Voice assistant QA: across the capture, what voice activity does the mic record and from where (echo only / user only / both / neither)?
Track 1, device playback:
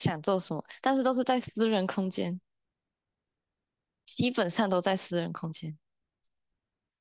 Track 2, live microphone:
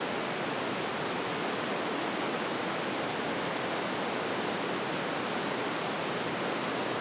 neither